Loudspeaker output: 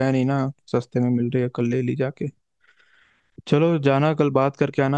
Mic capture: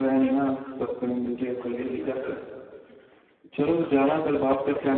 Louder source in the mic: echo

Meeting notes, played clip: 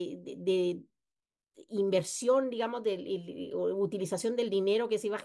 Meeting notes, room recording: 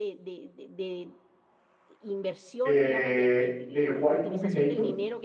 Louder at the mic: user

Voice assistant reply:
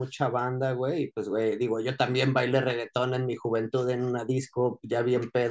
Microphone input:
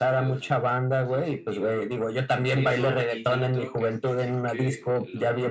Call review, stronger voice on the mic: echo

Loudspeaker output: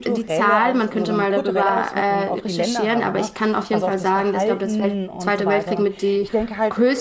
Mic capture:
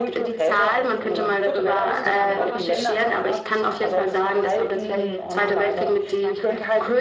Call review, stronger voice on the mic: echo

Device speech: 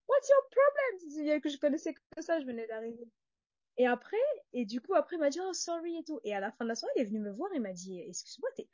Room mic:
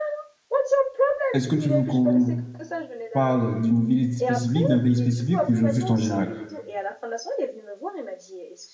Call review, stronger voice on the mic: user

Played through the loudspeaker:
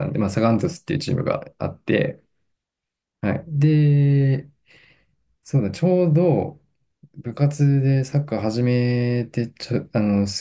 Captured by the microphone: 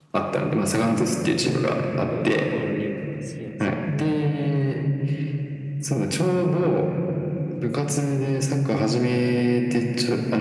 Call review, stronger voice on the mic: echo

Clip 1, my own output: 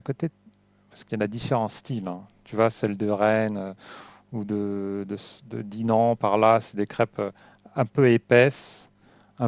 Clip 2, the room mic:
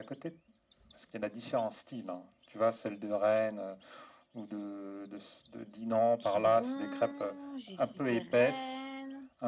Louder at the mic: echo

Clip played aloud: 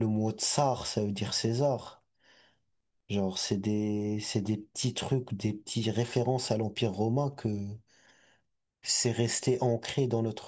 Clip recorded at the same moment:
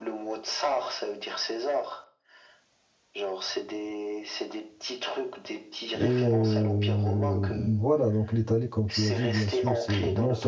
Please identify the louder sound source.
user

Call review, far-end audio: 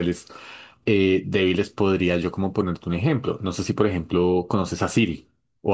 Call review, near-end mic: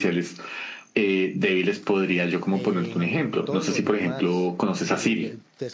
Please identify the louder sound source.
echo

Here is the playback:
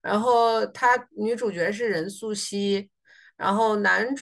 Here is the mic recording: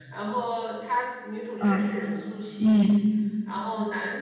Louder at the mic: user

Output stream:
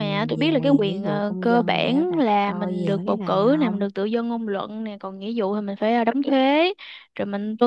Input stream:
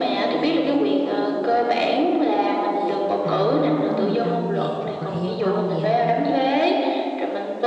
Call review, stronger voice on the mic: echo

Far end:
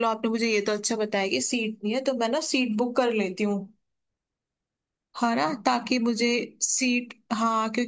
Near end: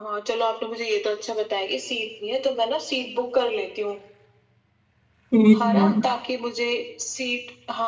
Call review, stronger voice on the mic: user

